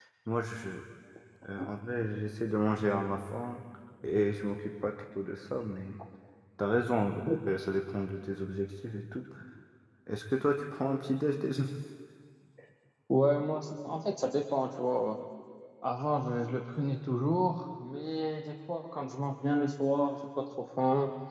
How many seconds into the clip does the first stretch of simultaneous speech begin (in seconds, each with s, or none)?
none